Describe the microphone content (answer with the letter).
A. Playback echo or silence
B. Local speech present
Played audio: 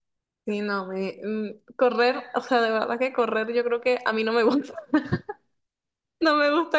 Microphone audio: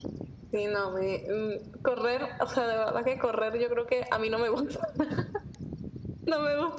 A